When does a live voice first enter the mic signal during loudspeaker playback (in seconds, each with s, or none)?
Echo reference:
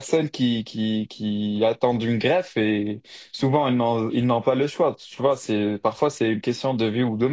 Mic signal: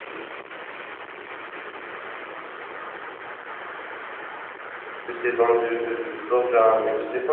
5.0 s